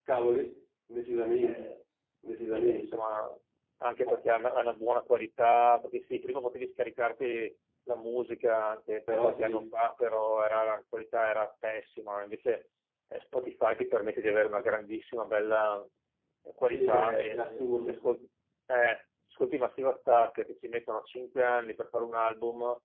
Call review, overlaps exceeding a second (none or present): present